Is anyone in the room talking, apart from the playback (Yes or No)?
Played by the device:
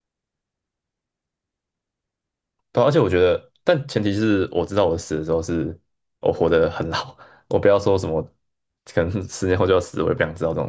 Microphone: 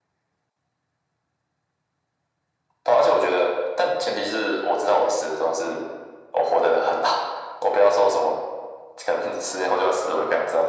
No